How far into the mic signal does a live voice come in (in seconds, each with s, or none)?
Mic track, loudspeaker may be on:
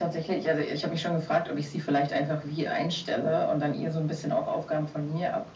none